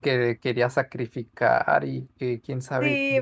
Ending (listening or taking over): taking over